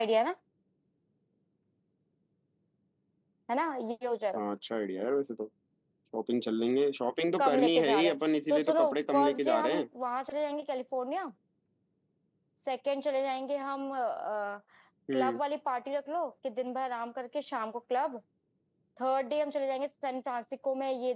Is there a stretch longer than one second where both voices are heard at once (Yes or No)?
Yes